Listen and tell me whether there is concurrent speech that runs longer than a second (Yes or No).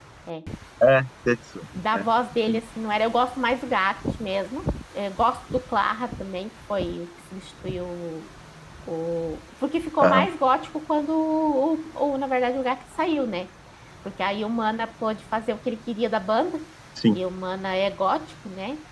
No